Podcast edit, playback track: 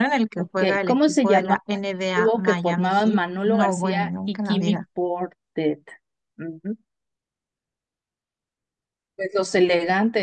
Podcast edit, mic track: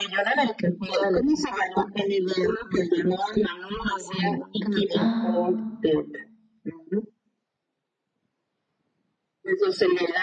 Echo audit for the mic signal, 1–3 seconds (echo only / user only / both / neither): echo only